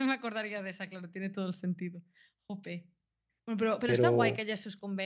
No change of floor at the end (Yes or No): Yes